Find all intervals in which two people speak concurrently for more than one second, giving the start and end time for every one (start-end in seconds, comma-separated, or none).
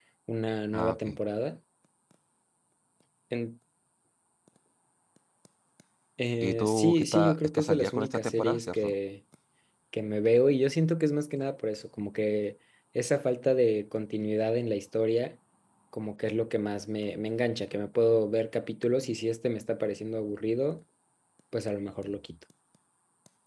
6.4-8.9